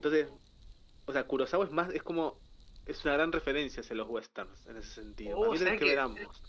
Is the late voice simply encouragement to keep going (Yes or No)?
No